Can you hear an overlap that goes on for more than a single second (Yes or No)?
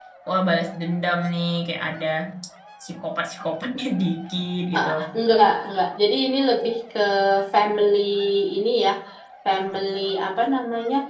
No